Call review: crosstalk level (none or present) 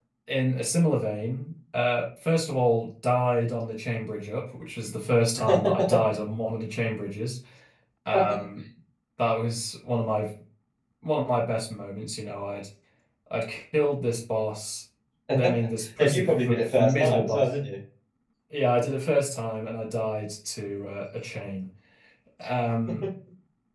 present